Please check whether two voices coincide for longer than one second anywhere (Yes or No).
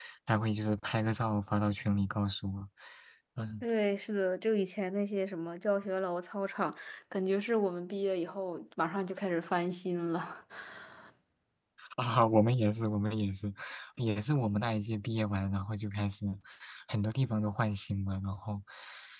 No